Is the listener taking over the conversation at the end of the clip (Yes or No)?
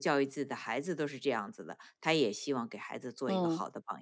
Yes